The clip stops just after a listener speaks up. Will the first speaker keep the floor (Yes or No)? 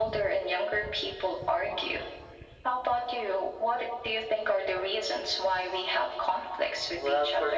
No